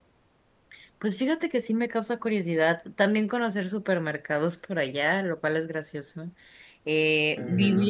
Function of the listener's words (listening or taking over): taking over